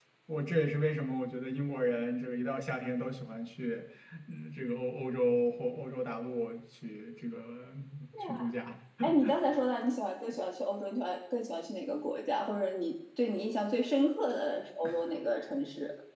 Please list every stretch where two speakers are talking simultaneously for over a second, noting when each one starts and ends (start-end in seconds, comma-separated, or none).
none